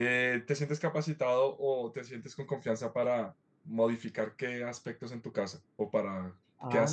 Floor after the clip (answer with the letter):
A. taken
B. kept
A